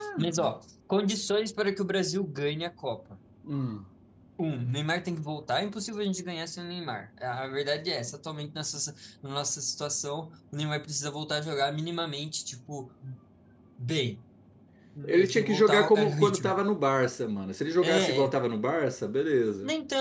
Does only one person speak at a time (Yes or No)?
No